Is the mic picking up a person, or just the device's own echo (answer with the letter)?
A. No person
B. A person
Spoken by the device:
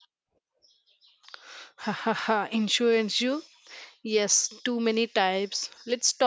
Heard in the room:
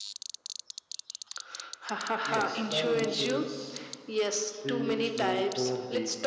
B